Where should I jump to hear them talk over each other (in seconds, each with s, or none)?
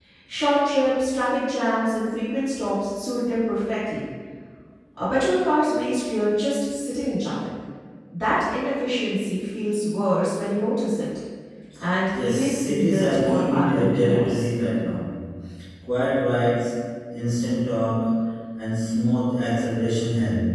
12.2 s